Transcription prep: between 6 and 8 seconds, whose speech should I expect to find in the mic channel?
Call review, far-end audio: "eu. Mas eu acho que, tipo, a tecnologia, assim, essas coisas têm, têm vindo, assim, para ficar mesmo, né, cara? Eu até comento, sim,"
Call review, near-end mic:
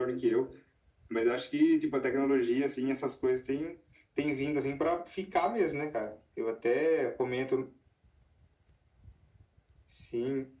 echo only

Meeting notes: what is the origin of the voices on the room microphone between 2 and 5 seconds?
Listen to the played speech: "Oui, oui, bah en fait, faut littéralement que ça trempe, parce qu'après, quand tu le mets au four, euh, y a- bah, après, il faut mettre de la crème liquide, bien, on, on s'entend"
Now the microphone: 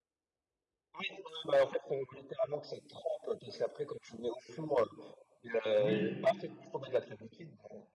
echo only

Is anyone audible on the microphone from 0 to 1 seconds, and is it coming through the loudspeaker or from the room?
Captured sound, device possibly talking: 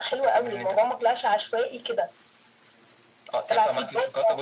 echo only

